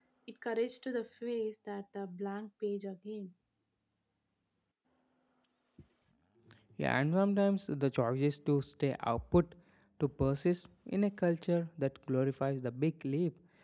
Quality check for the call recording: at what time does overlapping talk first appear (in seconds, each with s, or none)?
none